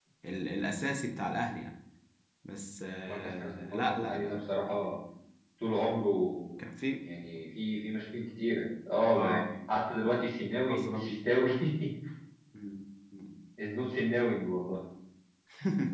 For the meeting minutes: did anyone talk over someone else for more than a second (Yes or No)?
Yes